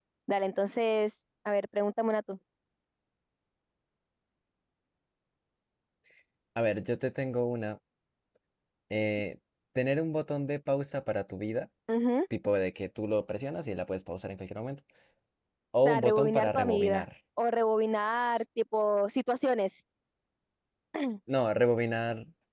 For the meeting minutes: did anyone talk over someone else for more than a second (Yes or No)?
Yes